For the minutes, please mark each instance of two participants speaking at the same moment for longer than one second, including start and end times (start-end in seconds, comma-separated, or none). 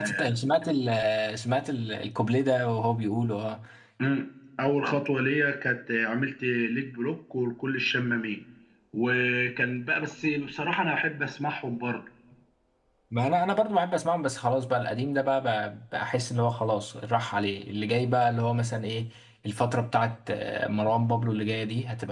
none